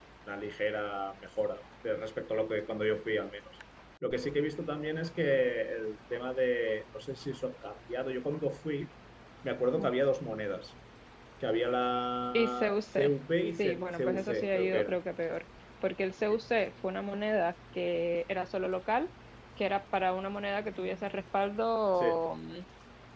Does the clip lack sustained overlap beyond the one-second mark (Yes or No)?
No